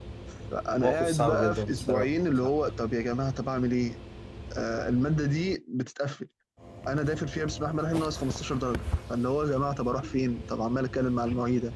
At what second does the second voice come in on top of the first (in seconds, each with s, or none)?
0.8 s